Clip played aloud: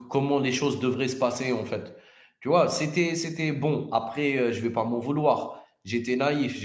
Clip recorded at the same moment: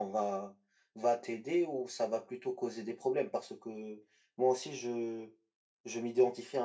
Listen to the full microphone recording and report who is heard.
user only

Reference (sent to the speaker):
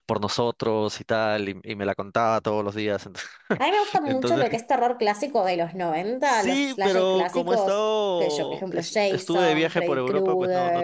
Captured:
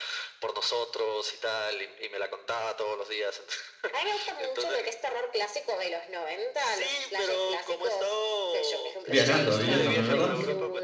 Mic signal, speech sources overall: both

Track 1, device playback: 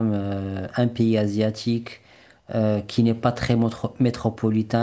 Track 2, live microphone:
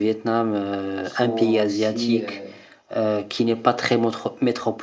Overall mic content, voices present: both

